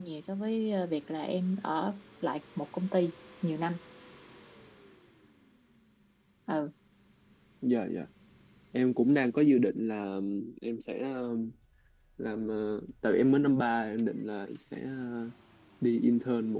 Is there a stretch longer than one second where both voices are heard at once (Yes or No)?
No